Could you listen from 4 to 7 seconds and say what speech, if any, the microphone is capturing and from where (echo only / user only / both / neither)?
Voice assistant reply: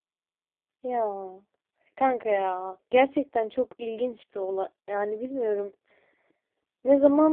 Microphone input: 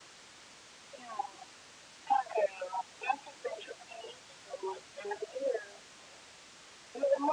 echo only